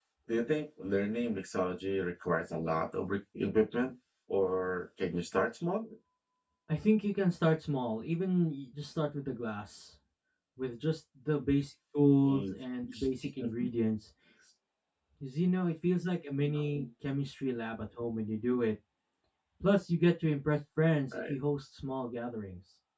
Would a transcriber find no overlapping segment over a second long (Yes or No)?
Yes